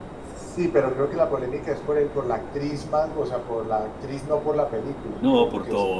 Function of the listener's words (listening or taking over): taking over